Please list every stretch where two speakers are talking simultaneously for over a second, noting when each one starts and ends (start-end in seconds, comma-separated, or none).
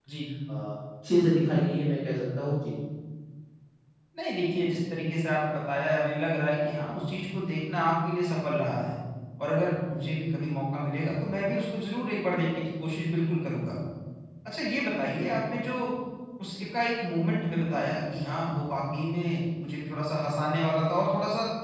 none